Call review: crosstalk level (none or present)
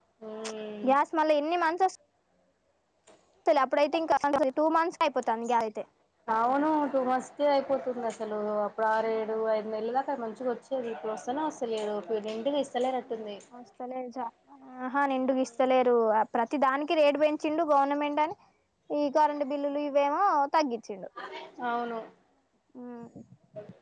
none